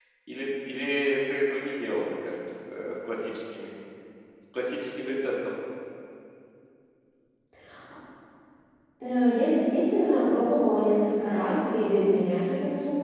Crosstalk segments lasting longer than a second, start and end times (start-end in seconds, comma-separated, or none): none